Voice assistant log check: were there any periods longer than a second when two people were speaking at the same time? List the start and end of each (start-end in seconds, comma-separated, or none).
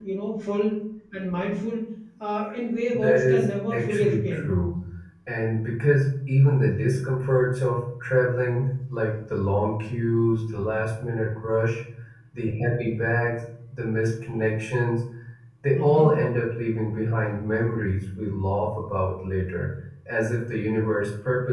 2.9-4.5